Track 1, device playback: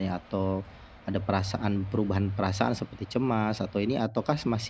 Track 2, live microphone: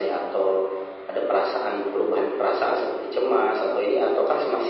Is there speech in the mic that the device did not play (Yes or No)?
No